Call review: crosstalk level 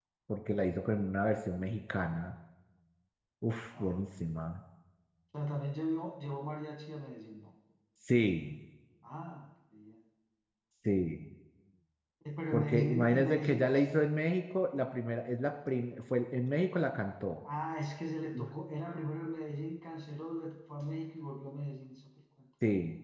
present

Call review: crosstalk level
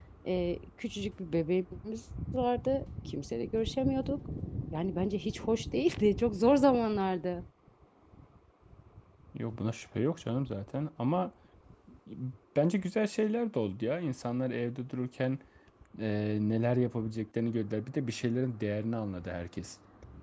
none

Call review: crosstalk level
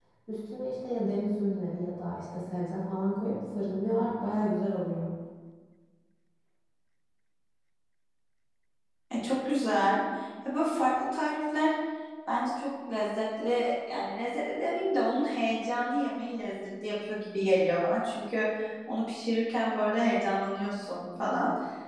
none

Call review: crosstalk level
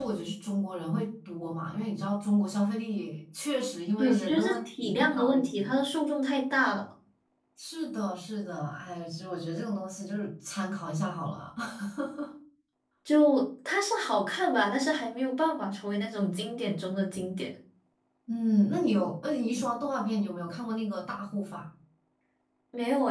present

